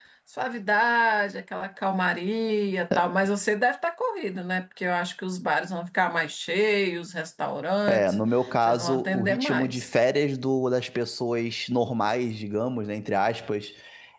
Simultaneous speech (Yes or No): Yes